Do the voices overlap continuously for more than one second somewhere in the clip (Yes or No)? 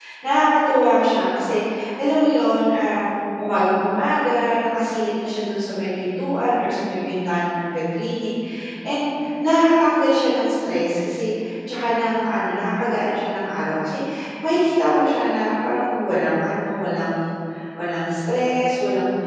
No